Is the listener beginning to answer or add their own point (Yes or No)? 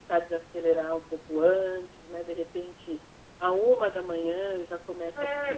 Yes